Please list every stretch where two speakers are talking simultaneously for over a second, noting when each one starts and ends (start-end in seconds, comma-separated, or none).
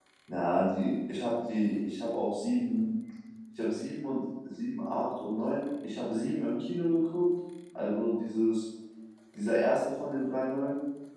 none